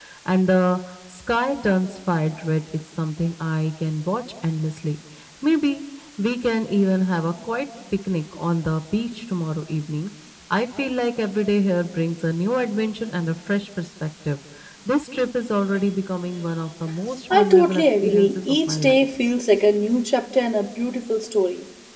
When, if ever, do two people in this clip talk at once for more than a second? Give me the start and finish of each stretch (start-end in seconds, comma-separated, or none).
17.3-19.0